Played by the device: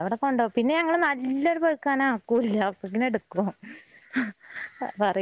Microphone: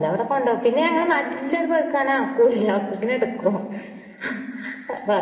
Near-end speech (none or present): none